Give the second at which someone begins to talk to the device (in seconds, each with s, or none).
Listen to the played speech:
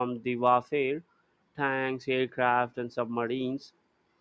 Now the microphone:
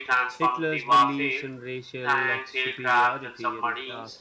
0.4 s